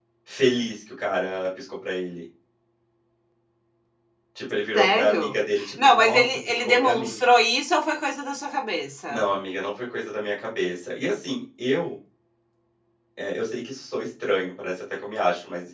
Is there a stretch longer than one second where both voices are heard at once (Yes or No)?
Yes